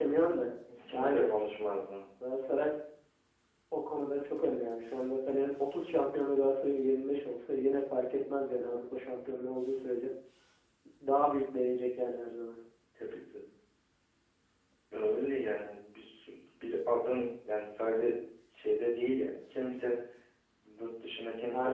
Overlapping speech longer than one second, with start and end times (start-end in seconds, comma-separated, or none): none